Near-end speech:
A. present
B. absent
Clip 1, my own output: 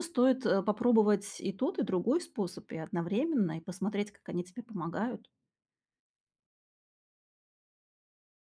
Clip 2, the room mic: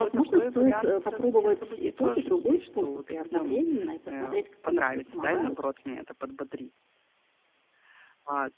A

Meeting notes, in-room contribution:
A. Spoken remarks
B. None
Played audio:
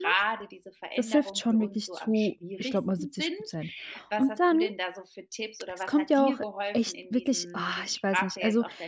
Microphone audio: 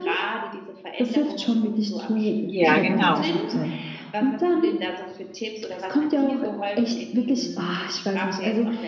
A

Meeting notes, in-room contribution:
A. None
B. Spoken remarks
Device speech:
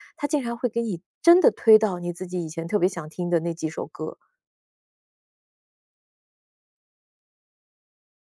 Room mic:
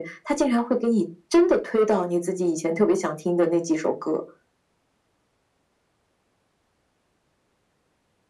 A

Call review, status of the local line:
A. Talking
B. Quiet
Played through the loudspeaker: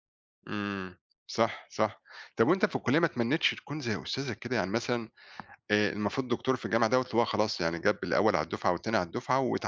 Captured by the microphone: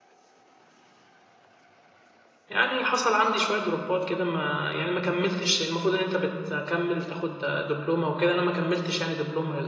A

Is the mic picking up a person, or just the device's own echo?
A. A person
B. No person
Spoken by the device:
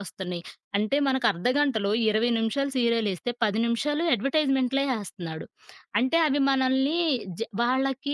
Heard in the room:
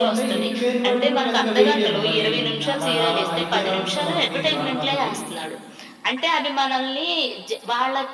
A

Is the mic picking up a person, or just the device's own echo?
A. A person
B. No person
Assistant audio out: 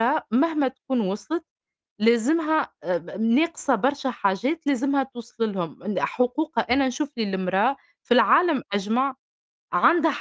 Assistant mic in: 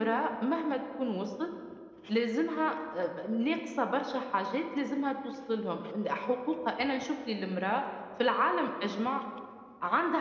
B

